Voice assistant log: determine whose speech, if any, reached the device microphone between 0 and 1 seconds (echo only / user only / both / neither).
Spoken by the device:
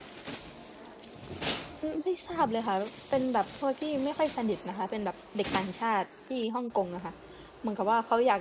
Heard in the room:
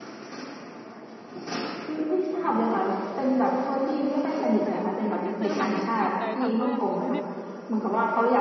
neither